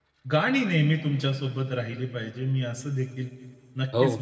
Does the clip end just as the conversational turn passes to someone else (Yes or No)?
No